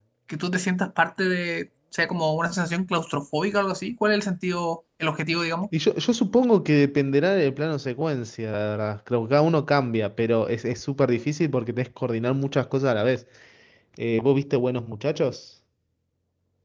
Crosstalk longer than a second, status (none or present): none